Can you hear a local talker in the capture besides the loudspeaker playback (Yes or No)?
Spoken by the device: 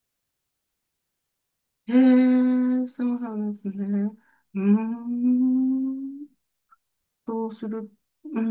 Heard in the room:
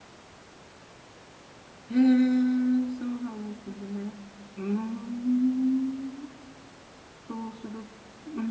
No